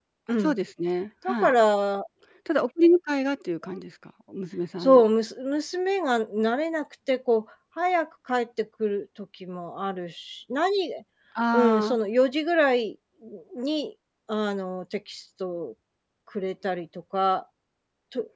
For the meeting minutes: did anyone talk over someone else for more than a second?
No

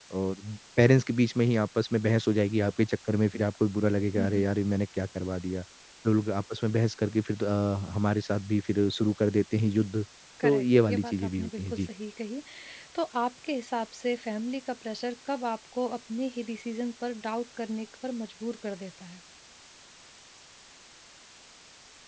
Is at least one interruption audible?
Yes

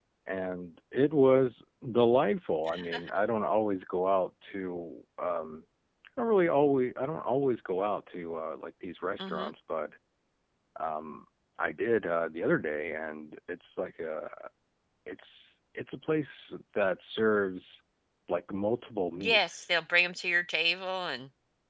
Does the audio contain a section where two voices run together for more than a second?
No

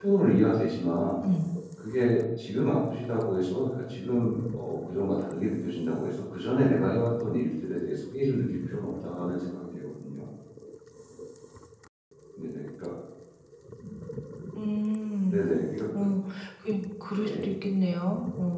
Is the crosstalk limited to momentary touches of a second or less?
Yes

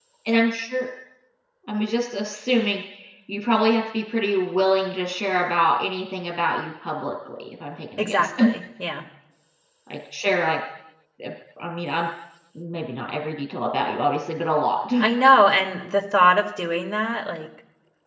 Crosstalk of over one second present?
No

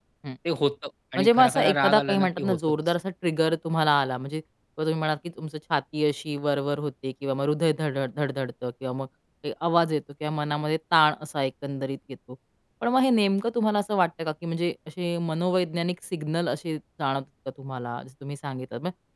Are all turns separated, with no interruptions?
No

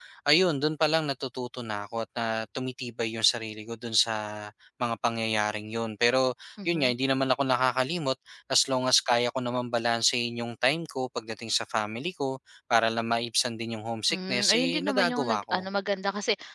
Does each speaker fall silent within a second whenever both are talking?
No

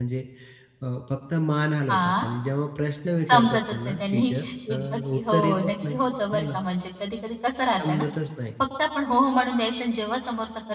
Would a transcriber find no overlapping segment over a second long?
No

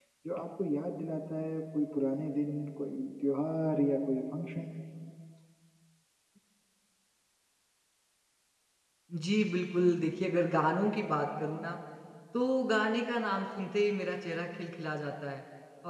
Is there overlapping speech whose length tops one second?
No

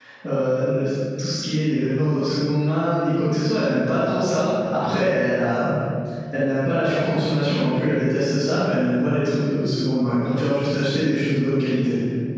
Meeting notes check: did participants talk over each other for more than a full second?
No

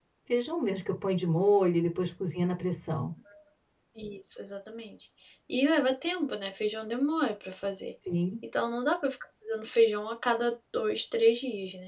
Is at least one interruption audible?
No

